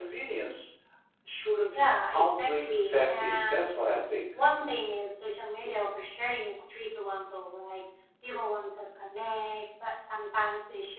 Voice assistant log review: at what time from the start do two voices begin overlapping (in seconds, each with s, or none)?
2.1 s